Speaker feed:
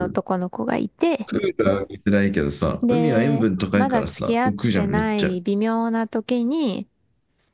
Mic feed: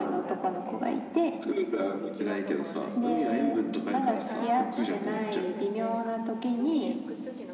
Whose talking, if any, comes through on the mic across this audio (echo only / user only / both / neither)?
both